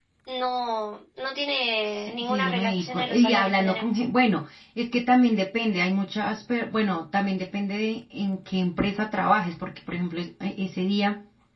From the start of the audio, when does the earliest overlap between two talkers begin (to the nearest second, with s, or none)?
2 s